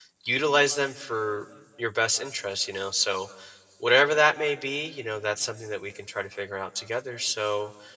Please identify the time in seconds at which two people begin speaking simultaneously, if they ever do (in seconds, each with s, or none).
none